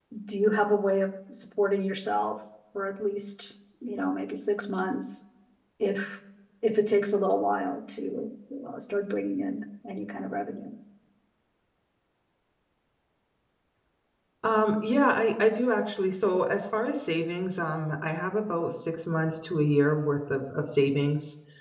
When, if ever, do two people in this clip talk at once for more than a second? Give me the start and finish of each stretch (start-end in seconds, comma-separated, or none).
none